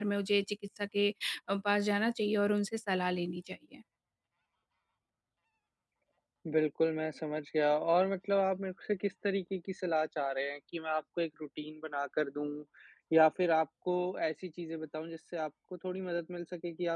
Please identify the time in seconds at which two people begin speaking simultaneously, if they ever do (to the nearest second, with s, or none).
none